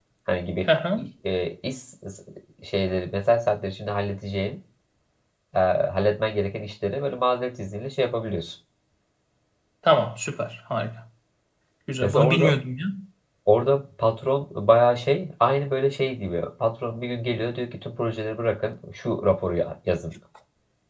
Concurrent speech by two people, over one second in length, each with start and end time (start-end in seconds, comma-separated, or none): none